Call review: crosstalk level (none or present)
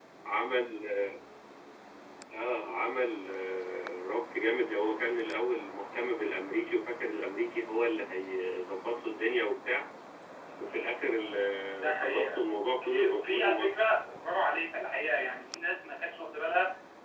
present